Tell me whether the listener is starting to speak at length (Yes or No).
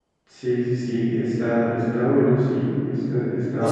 Yes